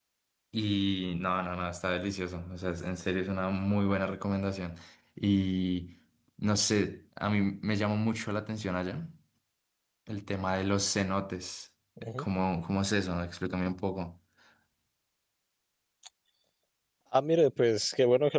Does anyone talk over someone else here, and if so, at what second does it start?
none

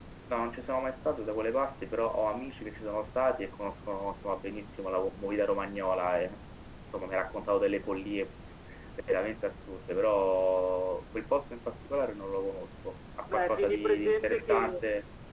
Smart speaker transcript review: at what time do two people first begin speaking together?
13.3 s

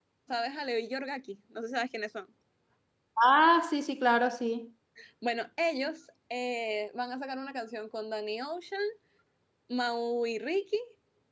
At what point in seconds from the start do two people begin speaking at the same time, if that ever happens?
none

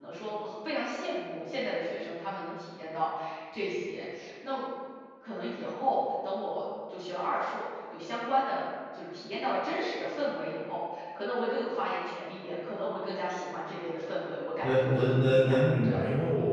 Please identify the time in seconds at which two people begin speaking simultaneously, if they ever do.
14.6 s

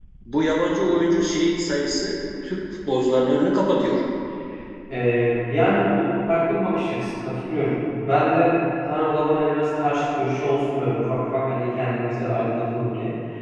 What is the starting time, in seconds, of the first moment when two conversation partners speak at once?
none

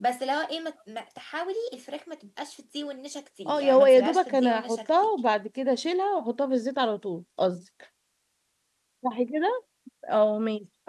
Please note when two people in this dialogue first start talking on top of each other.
3.5 s

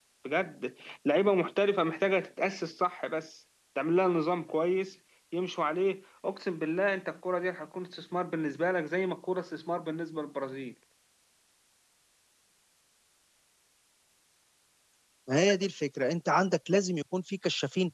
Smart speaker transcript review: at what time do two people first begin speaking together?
none

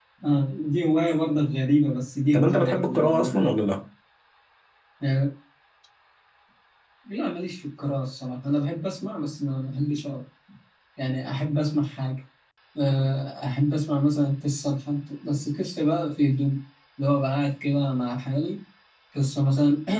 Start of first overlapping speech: 2.3 s

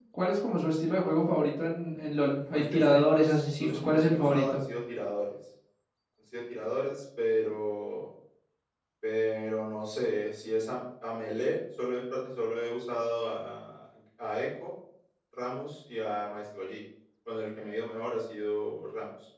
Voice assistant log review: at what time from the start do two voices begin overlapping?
2.5 s

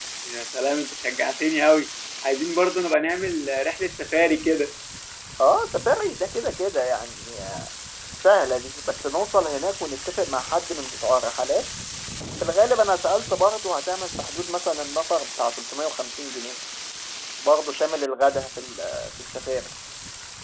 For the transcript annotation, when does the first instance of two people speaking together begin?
none

